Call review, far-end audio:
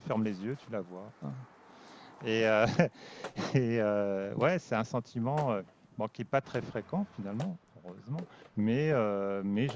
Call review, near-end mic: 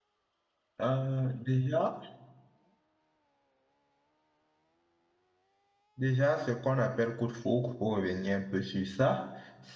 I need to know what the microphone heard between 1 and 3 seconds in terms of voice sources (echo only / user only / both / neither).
user only